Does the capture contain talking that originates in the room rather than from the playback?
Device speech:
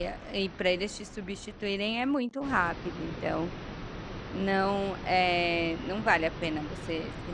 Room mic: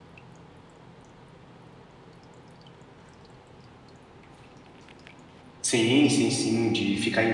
Yes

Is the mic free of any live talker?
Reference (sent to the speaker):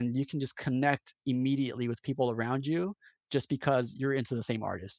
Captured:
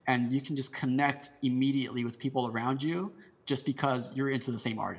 Yes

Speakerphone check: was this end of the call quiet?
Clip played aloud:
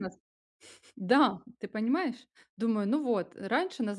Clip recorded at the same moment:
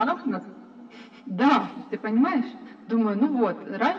Yes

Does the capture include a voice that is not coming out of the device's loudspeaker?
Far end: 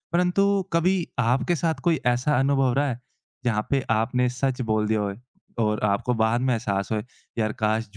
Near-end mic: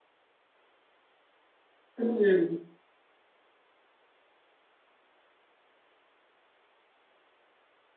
Yes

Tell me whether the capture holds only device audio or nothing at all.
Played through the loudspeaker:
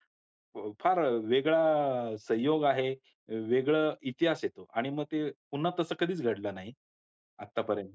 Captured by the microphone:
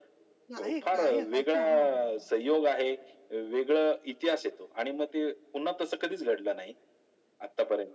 No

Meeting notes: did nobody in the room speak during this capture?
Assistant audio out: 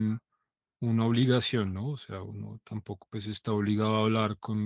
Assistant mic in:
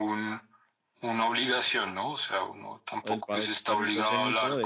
No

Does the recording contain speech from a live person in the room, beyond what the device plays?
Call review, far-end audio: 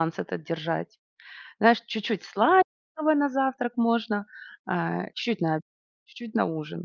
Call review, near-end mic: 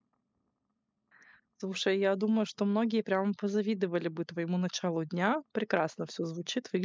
Yes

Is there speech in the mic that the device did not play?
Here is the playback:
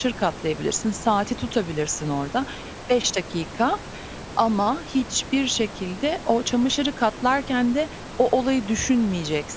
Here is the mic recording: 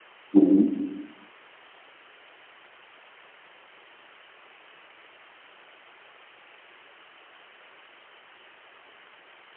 Yes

